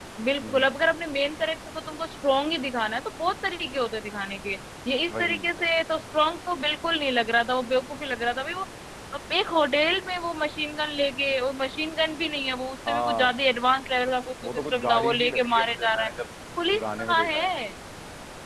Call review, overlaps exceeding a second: present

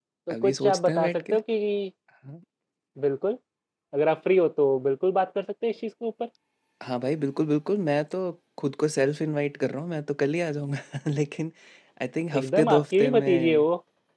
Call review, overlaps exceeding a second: present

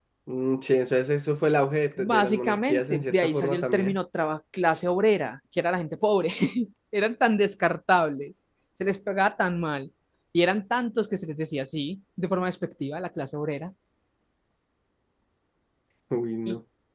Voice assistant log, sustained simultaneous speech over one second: present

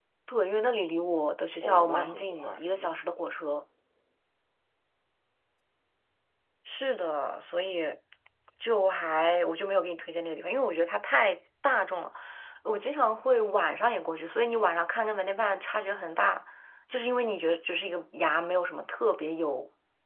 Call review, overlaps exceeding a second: present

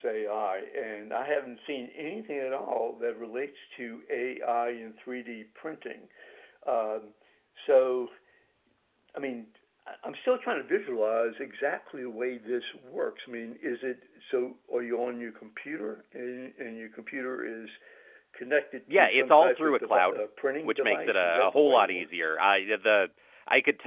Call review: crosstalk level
present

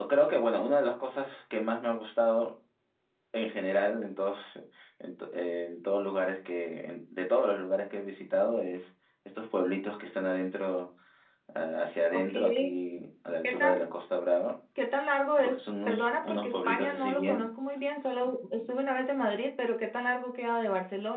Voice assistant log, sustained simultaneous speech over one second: present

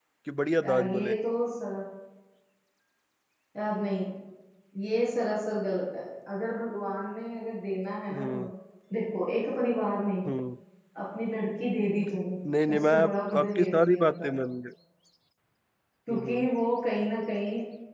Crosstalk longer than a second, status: present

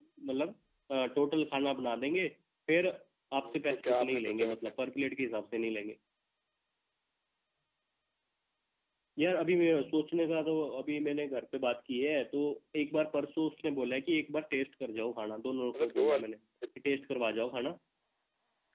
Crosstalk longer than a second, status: present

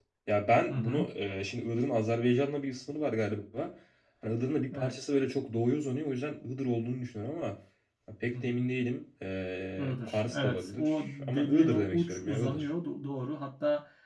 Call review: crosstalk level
present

